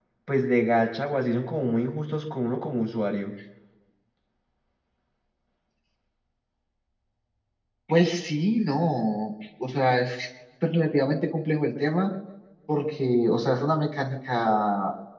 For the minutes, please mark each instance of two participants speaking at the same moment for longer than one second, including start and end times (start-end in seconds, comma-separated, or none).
none